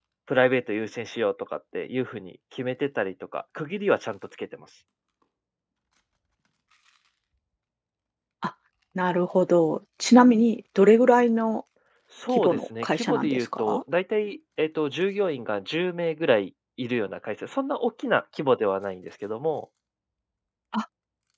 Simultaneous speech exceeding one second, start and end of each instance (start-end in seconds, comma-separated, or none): 12.4-13.8